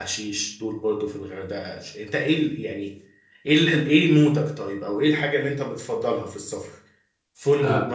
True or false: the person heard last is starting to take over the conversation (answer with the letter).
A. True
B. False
B